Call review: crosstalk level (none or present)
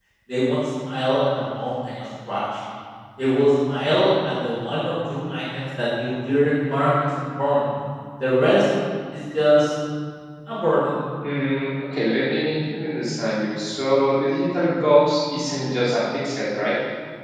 none